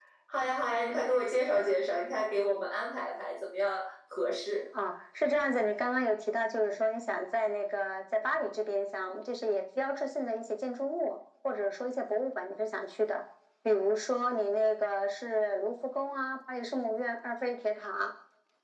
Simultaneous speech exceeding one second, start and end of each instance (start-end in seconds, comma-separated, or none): none